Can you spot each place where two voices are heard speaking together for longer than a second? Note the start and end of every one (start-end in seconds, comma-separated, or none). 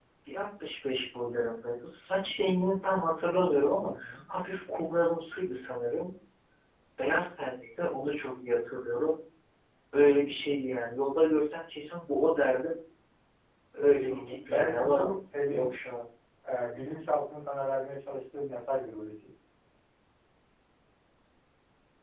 13.8-15.1